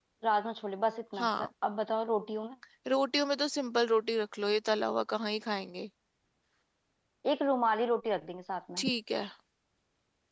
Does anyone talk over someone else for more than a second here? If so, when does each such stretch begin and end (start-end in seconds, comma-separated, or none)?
none